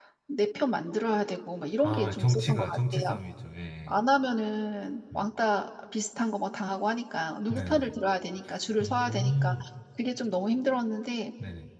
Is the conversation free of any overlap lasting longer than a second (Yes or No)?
No